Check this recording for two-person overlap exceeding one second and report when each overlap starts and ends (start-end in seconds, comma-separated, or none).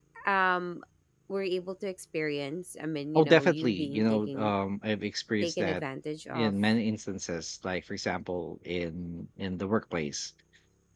3.1-4.5